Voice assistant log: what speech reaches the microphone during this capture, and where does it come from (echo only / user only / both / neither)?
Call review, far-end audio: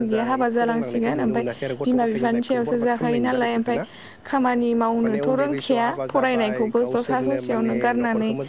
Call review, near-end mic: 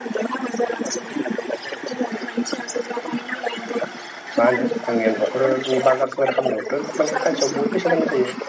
both